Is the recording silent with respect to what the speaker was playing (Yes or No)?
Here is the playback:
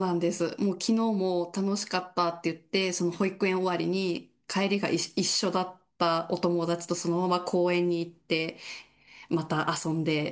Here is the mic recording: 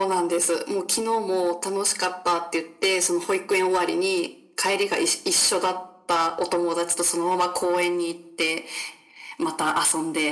No